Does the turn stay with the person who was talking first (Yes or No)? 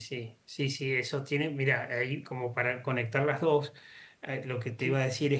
Yes